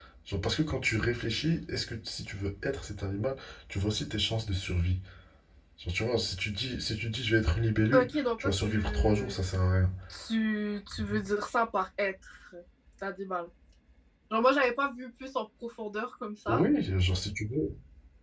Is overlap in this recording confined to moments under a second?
No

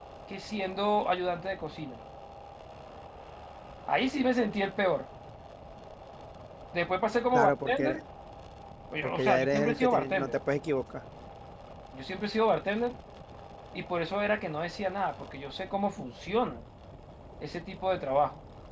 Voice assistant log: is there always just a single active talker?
No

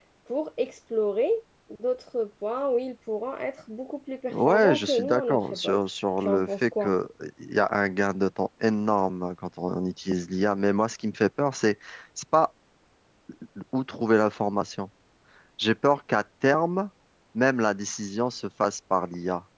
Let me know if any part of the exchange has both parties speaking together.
Yes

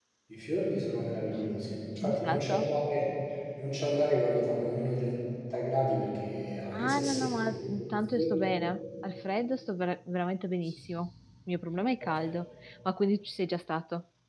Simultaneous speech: Yes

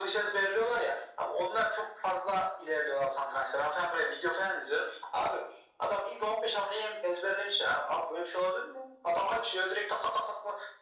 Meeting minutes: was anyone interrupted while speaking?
No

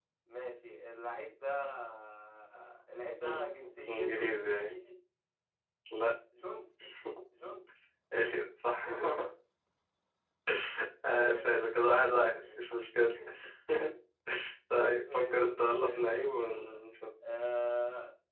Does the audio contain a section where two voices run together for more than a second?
Yes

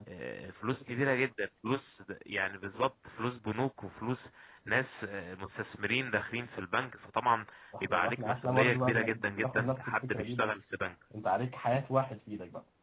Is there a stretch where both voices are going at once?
Yes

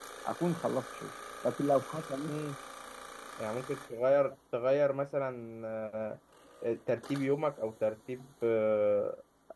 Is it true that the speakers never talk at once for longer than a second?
Yes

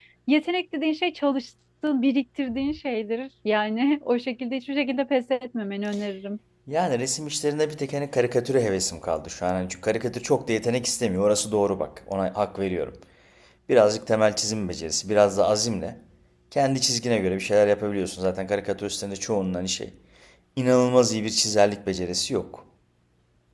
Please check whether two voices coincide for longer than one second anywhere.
No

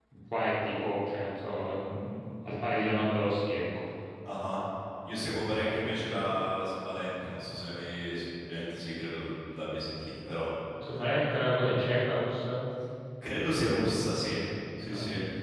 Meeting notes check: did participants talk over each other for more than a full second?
No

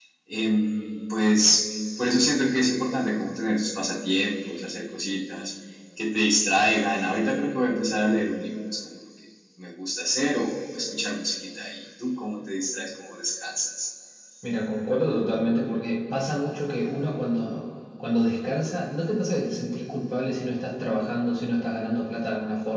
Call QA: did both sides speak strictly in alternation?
Yes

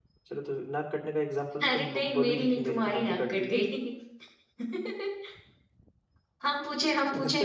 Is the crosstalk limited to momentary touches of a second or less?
No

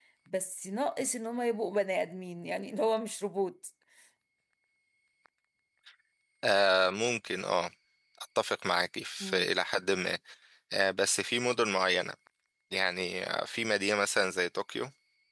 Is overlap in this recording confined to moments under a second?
Yes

